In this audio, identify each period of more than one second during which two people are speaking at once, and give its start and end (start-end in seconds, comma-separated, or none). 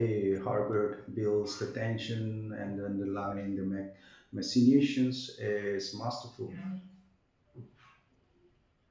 none